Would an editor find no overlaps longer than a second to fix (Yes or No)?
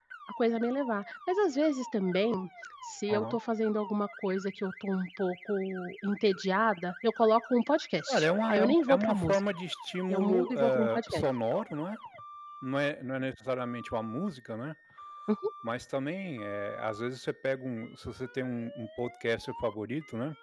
No